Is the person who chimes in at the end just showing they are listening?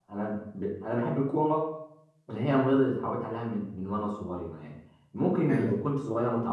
Yes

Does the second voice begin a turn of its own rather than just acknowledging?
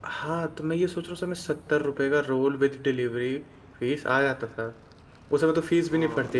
Yes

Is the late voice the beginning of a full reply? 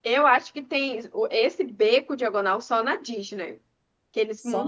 Yes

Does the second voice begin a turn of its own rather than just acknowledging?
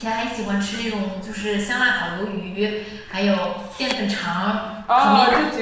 Yes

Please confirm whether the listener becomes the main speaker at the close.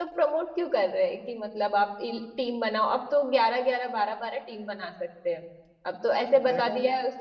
No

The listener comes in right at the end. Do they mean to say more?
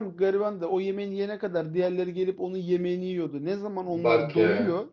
No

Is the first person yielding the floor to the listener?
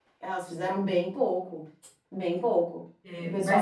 Yes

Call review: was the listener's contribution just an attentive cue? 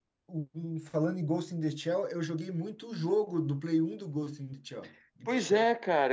No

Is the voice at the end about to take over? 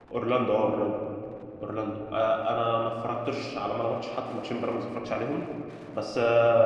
No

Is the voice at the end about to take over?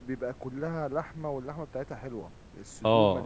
Yes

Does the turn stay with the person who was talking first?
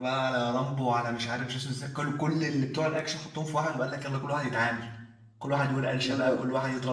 Yes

